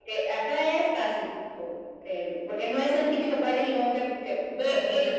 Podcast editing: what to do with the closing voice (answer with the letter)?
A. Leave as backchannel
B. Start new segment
B